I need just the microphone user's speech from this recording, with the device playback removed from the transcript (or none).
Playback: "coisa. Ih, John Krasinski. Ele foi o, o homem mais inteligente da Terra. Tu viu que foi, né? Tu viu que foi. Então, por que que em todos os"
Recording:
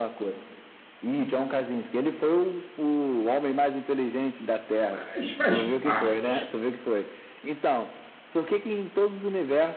Mas faz parte.